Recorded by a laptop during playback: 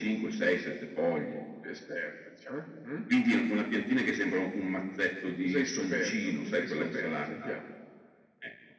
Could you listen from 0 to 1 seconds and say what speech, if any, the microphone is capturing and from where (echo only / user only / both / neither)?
echo only